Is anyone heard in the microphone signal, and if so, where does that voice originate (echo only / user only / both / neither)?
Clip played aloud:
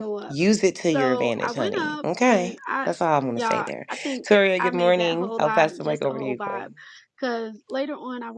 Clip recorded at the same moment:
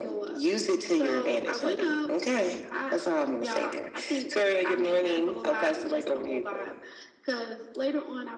echo only